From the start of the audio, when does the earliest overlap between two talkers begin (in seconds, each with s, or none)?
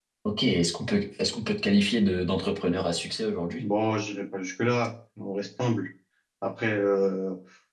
none